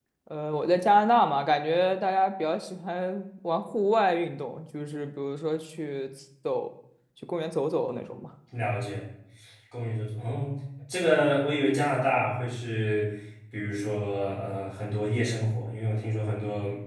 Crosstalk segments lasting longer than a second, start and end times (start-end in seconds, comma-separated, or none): none